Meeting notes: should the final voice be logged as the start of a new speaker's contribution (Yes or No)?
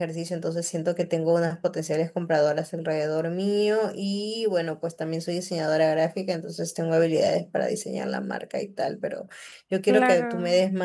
No